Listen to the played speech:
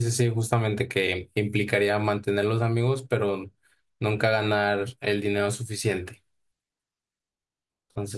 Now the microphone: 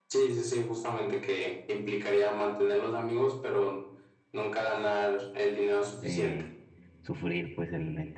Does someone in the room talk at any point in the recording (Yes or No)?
Yes